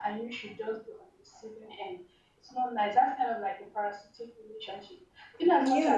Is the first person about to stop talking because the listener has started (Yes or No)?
No